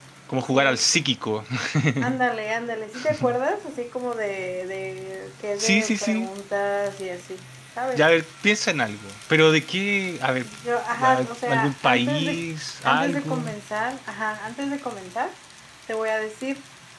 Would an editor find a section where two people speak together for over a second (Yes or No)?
Yes